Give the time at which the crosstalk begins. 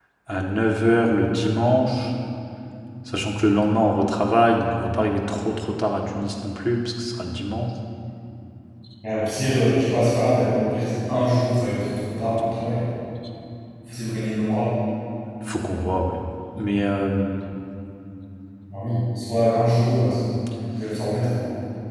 none

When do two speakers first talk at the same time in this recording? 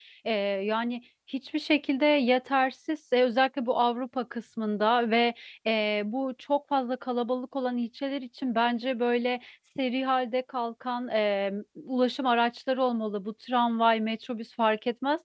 none

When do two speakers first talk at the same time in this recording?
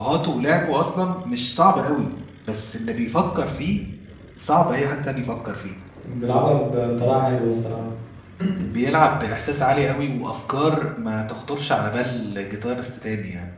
none

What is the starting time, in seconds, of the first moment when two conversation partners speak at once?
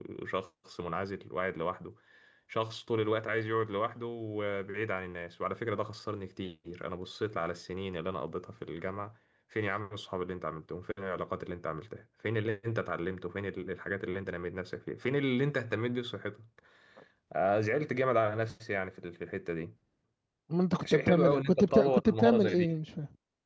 20.9 s

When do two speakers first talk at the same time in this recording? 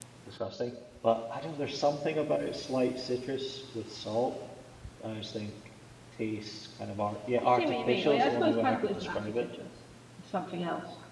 7.4 s

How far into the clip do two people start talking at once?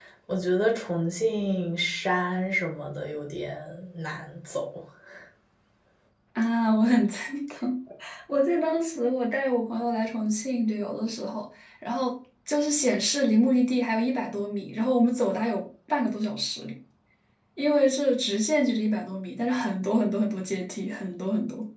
none

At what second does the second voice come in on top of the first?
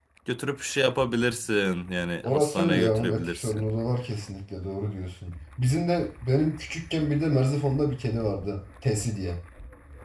2.2 s

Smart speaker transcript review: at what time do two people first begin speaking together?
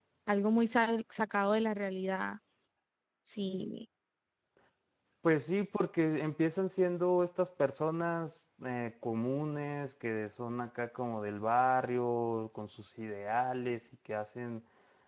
none

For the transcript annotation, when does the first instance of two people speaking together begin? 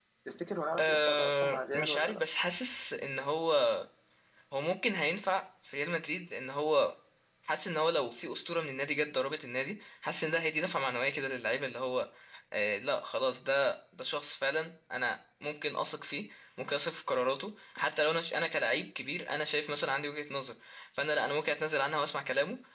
0.8 s

